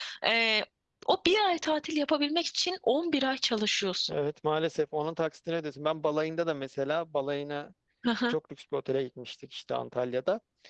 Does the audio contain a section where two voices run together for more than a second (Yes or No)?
No